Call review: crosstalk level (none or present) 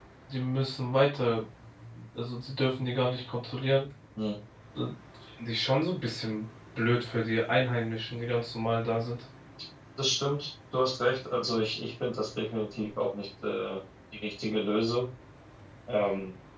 none